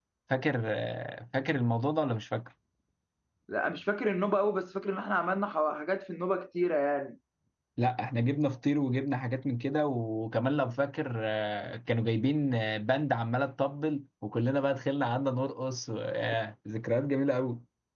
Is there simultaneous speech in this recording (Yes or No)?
No